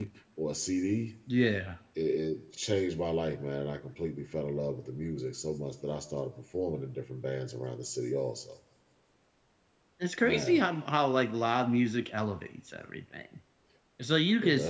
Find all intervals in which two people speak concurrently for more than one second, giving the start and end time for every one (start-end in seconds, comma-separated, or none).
none